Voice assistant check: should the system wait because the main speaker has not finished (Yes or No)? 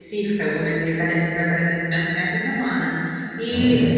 Yes